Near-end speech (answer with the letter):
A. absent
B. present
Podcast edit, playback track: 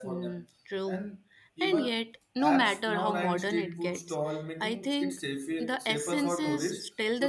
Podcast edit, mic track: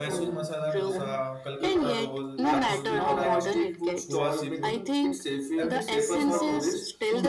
B